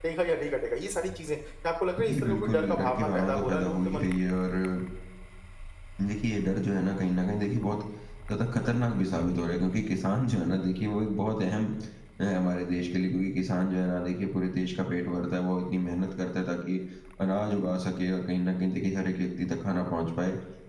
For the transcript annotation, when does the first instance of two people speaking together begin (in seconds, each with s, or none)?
2.0 s